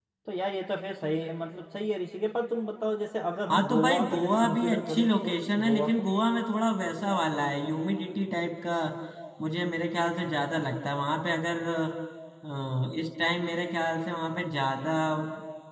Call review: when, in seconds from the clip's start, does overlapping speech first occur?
4 s

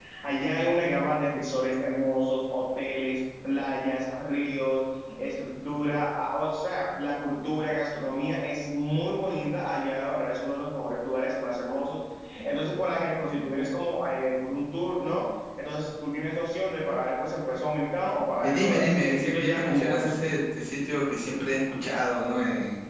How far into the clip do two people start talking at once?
18 s

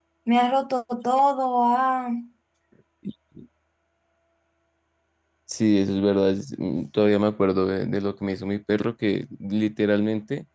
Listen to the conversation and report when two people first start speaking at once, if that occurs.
none

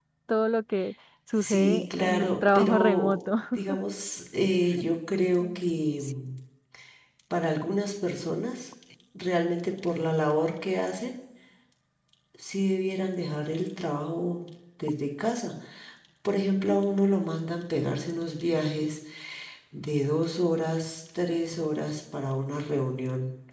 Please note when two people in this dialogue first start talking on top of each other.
1 s

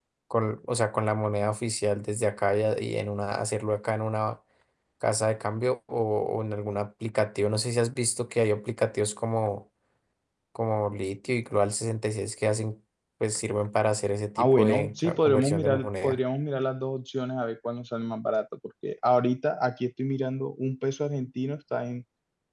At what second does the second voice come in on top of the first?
14 s

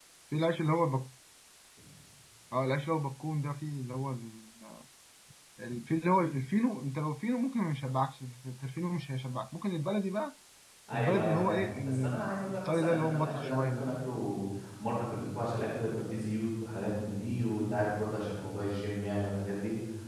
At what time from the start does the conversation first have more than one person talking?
11 s

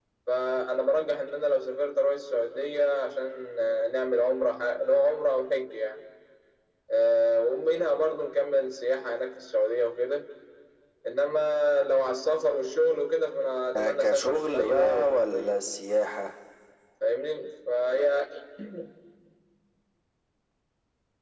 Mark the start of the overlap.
14 s

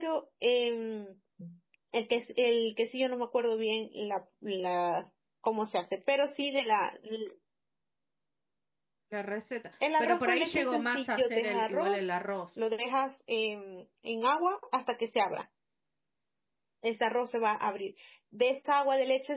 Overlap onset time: 10 s

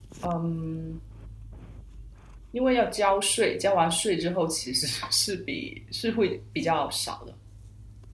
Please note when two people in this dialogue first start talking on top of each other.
none

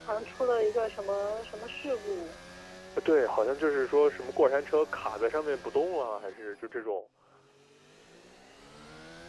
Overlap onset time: none

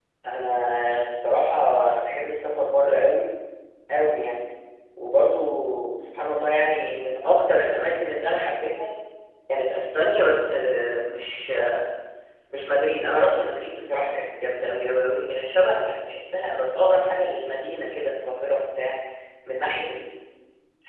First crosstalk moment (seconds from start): none

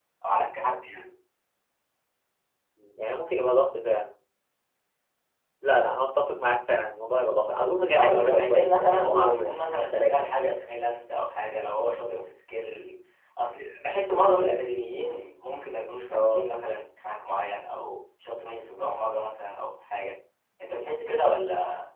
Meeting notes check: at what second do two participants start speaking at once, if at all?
8 s

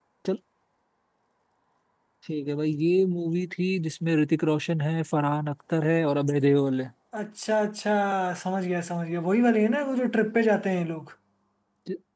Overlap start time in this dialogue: none

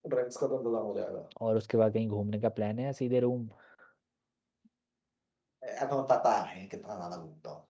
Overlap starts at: none

